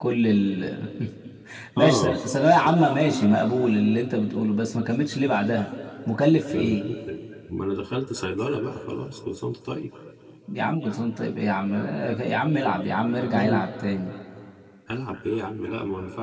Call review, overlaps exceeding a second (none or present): none